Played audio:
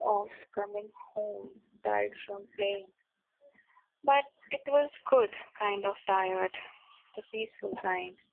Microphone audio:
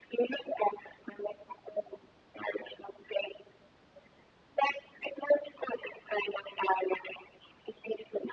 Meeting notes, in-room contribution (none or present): none